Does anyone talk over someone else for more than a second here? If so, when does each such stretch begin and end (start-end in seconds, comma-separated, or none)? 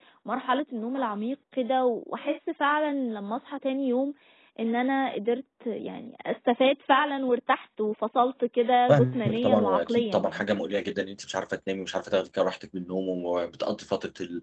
8.9-10.5